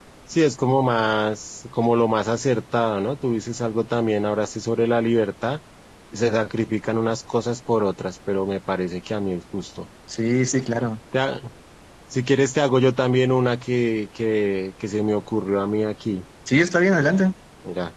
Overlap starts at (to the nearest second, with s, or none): none